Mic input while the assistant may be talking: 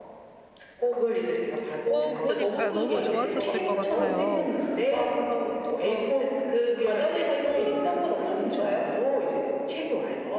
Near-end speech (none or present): present